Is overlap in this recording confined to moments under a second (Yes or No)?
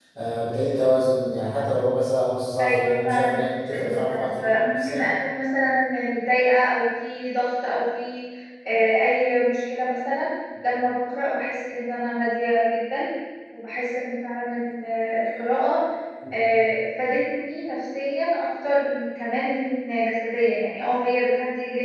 No